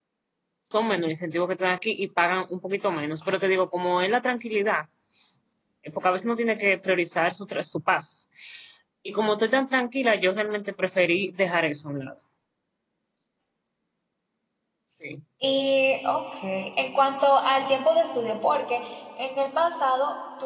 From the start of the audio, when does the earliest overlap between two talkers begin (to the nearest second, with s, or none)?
none